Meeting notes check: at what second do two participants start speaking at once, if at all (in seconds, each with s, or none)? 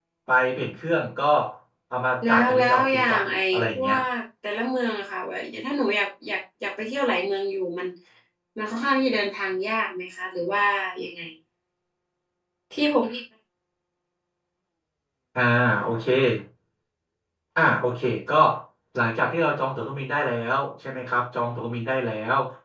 2.2 s